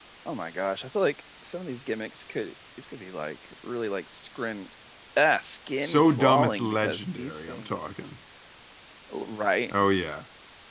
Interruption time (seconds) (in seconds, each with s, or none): 5.8 s